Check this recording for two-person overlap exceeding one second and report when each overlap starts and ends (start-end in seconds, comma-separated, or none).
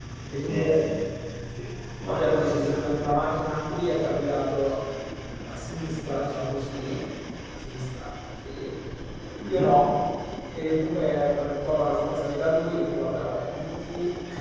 2.0-3.4